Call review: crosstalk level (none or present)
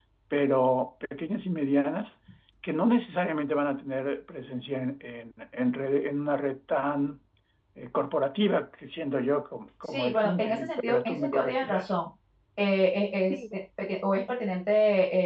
present